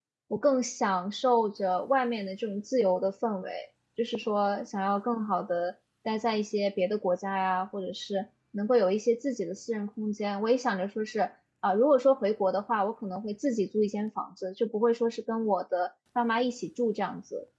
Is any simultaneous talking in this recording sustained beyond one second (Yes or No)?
No